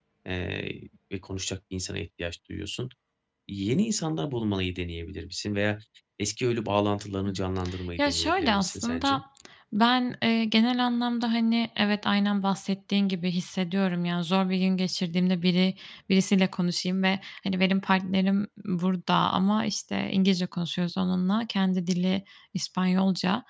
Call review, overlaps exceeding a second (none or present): present